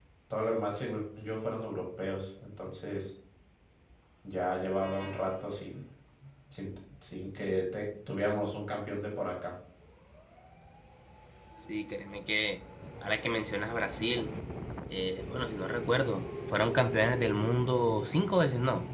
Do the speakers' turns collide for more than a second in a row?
No

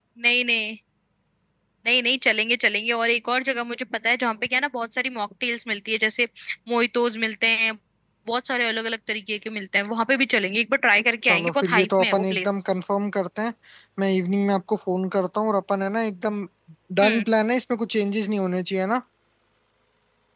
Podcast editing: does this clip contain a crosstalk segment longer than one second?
Yes, from 11.2 s

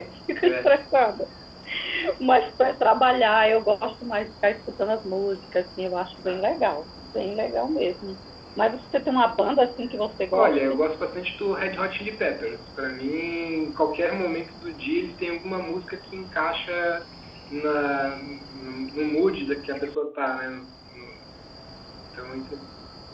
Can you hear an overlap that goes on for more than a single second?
No

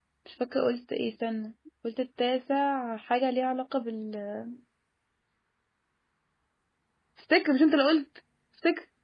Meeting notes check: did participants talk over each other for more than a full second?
No

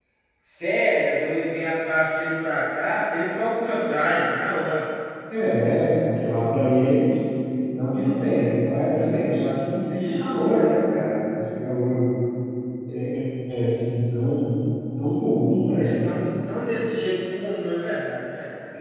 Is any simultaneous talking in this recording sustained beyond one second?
No

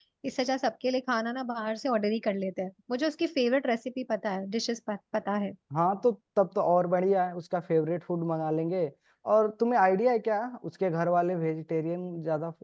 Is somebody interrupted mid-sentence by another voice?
No

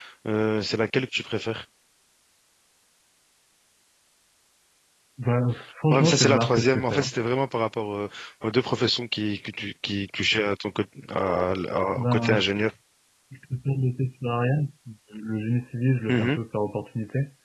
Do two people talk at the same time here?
Yes, from 5.9 s

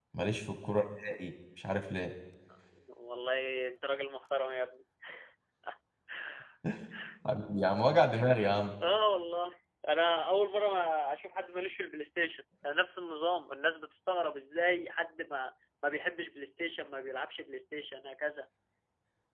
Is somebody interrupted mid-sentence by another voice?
No

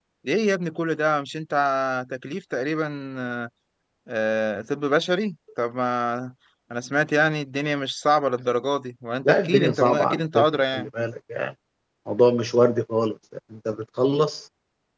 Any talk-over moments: Yes, from 9.2 s

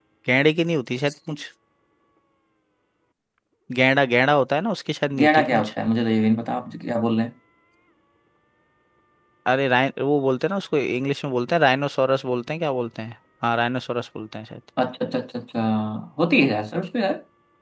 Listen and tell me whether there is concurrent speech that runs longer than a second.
No

